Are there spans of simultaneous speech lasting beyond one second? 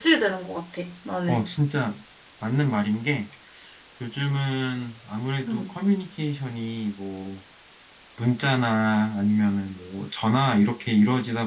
No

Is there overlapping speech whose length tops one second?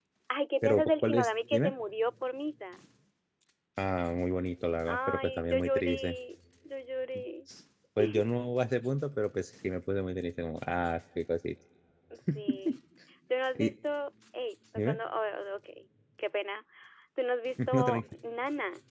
Yes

